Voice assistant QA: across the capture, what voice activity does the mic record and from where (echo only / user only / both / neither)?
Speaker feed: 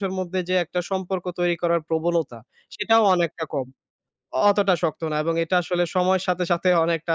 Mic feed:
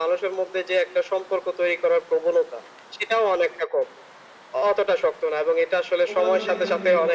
both